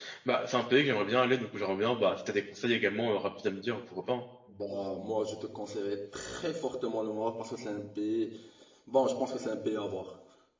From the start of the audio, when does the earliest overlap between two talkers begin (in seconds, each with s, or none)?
none